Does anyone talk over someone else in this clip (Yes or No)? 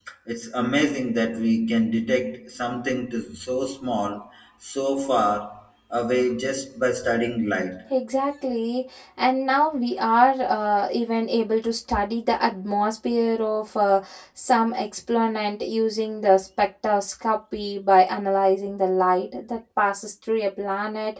No